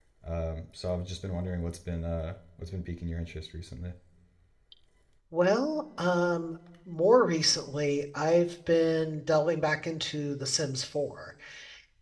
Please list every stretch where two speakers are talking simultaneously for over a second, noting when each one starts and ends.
none

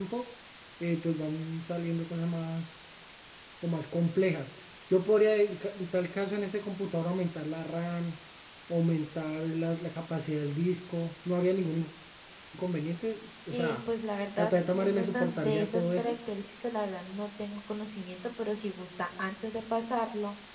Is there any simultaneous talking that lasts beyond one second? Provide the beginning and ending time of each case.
14.4-16.2

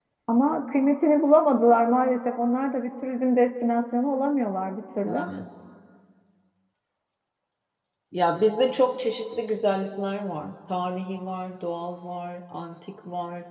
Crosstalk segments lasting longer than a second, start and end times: none

